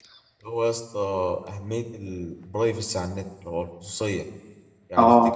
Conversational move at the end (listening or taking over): listening